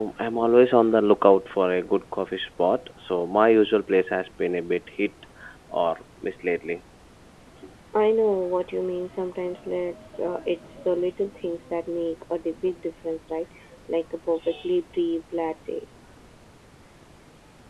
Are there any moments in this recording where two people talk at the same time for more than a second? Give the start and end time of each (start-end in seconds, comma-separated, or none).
none